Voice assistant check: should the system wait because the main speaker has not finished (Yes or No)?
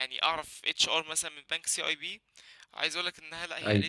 Yes